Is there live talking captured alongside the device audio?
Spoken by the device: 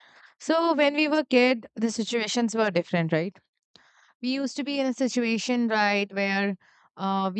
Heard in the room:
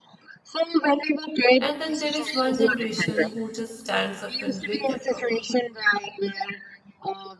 Yes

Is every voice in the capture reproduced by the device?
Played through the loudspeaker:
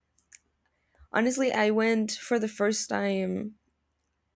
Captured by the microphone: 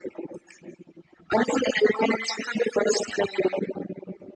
Yes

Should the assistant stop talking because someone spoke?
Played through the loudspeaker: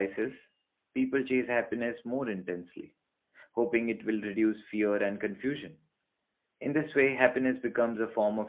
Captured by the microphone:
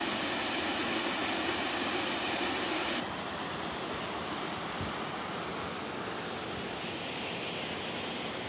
No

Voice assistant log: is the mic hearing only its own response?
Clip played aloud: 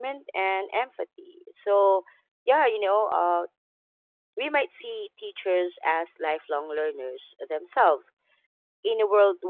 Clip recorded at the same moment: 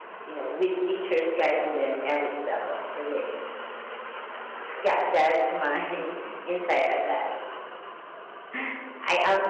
No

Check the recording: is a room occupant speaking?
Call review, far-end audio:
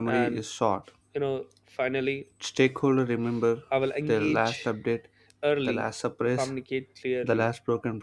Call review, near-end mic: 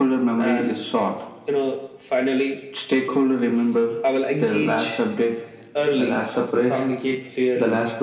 No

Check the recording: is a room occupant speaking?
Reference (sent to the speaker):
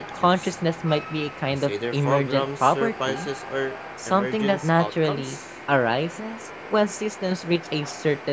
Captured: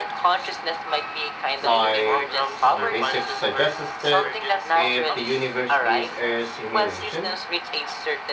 Yes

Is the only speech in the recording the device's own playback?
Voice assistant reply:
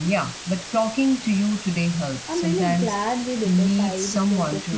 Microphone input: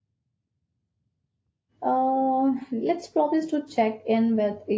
No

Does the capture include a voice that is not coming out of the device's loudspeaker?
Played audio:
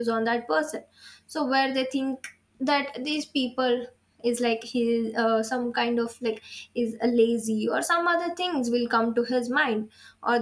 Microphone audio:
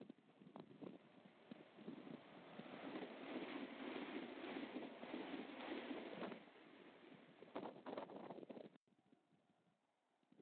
No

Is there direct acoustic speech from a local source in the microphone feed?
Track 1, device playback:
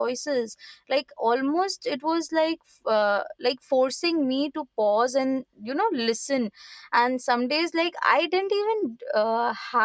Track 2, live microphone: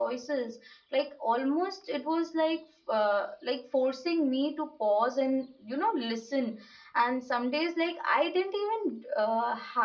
No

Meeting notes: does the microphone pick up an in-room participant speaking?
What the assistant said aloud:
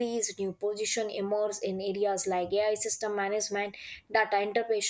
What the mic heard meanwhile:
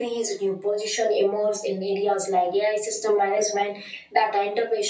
No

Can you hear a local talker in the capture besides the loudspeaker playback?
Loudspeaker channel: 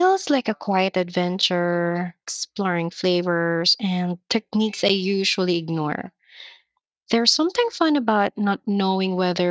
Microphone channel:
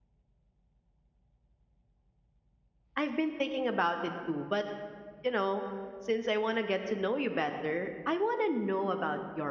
Yes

